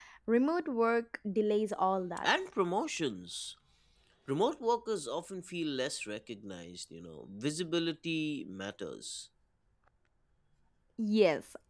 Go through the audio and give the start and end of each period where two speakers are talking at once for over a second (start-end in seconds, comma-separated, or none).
none